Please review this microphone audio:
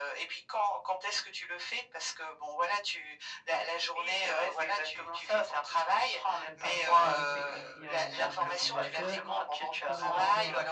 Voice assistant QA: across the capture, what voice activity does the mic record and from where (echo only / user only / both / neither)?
both